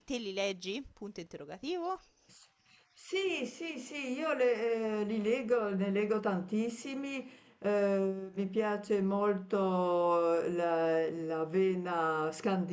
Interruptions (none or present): none